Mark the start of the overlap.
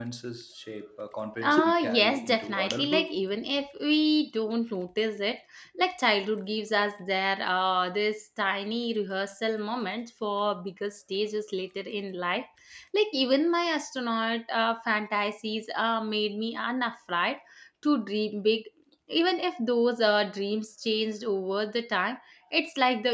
1.4 s

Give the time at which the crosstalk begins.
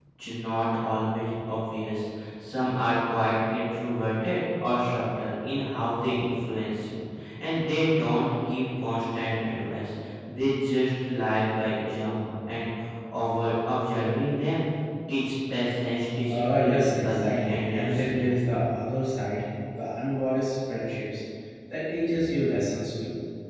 16.3 s

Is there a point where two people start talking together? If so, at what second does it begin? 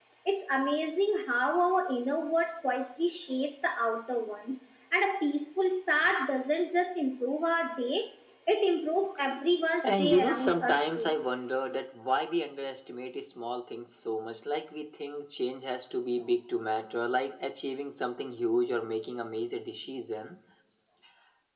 9.8 s

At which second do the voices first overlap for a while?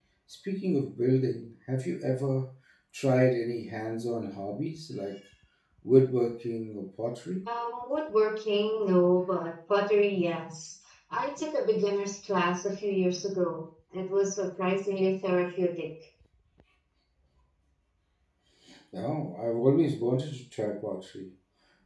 none

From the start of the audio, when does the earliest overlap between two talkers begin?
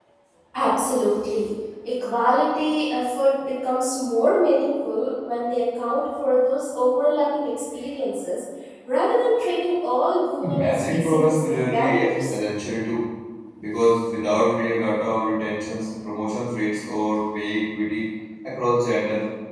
10.4 s

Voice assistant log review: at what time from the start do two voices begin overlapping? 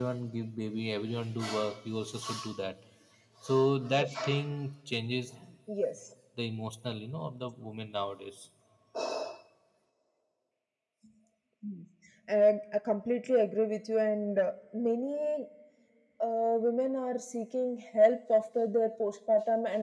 none

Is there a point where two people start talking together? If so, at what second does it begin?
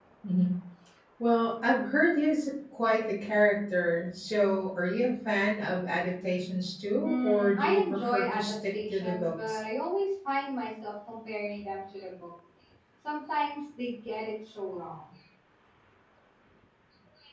7.0 s

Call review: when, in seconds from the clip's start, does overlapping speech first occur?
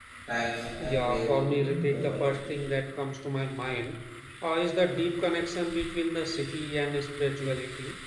0.8 s

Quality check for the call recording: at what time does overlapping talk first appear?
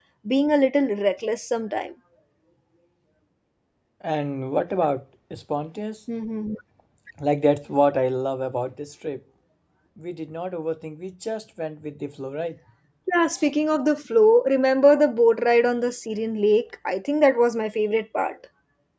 none

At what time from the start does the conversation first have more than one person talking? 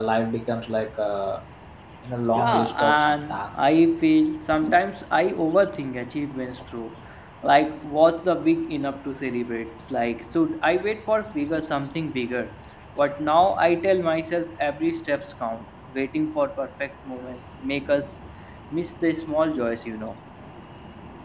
2.4 s

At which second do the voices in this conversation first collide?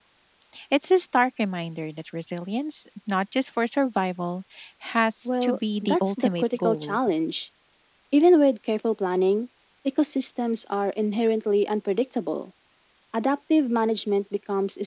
5.2 s

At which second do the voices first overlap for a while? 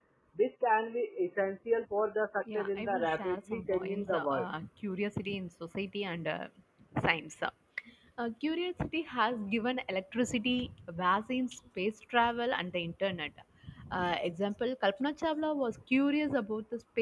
2.5 s

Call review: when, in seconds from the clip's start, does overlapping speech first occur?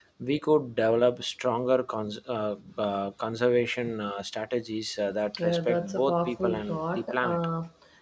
5.3 s

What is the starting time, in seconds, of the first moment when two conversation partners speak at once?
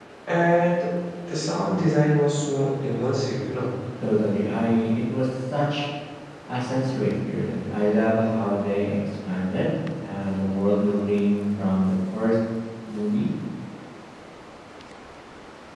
none

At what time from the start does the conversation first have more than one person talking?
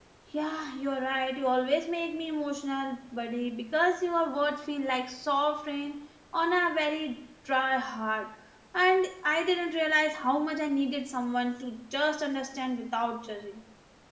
none

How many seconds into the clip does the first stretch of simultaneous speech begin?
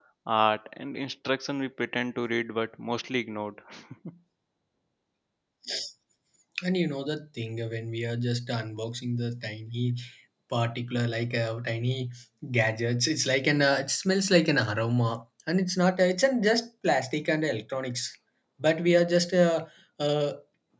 none

